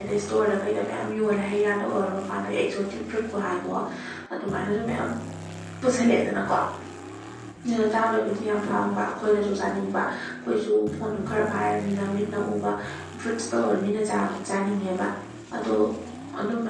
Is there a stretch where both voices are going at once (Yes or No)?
No